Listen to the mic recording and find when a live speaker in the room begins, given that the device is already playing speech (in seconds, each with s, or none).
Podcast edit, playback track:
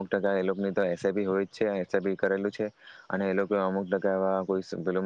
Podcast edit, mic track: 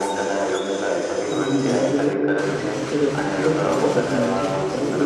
1.3 s